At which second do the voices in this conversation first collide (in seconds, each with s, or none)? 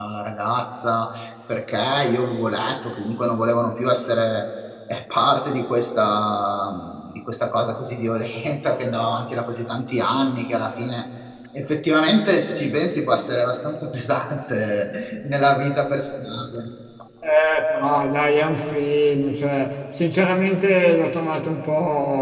none